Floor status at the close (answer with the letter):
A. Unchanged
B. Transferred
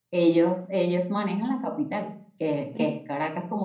A